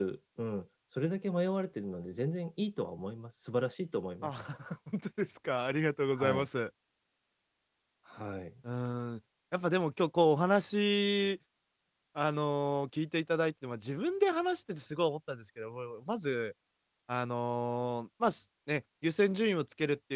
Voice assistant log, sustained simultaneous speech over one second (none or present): none